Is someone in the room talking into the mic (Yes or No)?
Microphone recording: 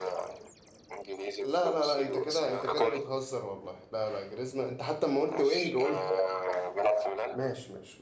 Yes